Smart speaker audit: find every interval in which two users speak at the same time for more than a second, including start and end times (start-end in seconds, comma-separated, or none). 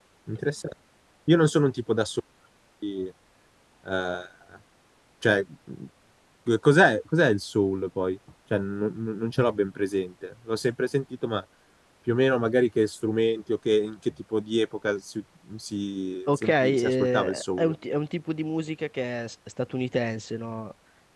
16.3-17.7